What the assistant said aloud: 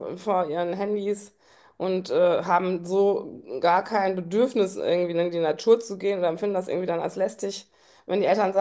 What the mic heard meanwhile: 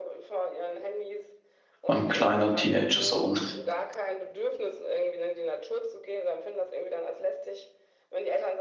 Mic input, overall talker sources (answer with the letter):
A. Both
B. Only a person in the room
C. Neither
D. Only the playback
A